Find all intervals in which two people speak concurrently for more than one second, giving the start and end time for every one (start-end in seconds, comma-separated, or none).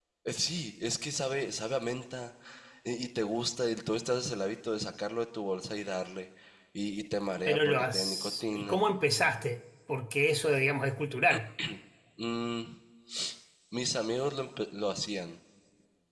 7.5-8.8